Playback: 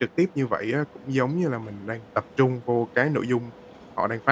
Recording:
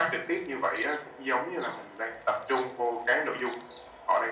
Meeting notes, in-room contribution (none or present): none